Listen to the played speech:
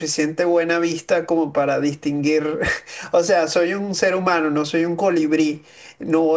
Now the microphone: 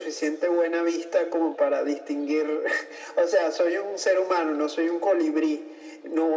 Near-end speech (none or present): none